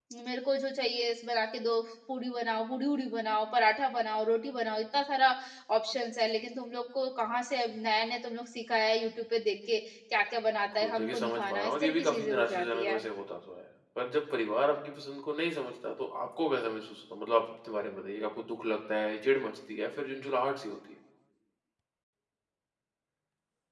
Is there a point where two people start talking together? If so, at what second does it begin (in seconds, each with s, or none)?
10.7 s